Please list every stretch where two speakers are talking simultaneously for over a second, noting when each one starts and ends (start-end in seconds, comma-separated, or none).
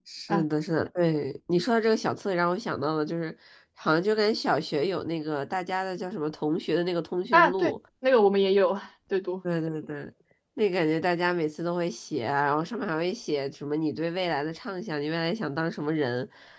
none